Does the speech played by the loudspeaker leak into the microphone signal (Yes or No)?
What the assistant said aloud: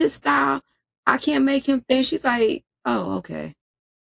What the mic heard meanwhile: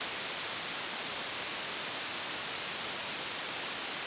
No